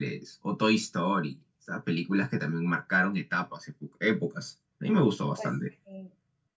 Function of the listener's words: taking over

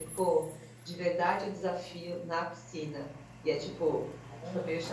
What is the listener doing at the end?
listening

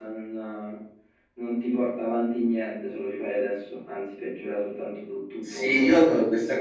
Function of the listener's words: taking over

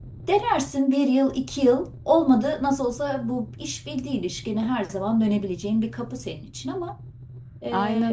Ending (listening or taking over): taking over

